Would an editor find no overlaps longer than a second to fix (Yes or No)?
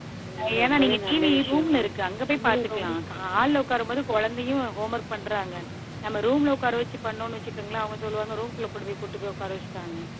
No